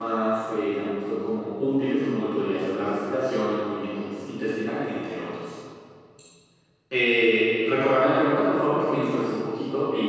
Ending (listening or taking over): taking over